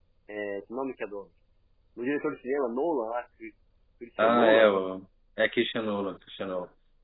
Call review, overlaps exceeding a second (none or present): none